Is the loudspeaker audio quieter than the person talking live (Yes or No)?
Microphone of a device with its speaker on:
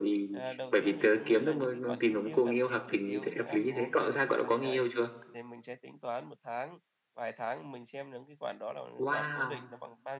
No